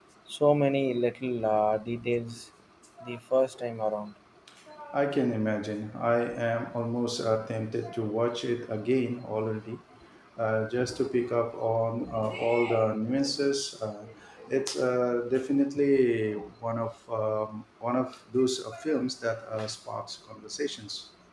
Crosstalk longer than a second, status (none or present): none